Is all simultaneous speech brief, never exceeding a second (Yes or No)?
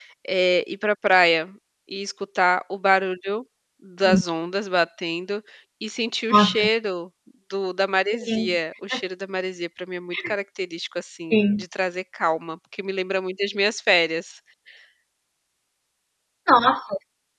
Yes